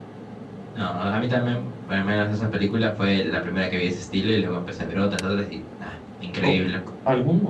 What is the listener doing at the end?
taking over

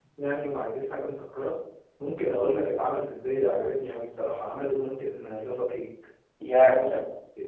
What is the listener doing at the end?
taking over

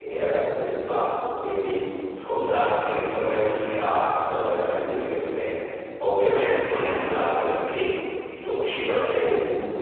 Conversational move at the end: listening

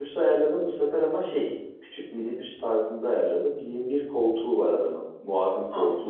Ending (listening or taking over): taking over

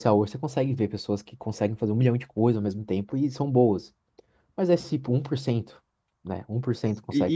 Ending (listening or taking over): taking over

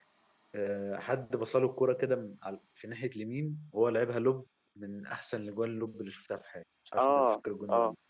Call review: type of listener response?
taking over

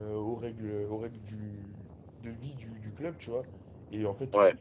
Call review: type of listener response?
listening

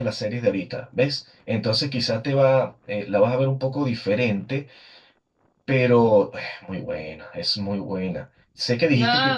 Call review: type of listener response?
listening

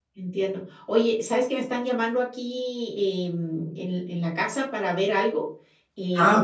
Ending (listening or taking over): listening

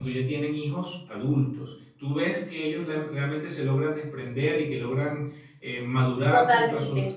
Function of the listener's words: taking over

